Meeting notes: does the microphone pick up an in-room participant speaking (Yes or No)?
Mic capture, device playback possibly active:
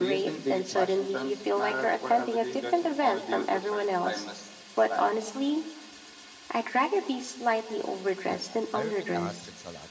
Yes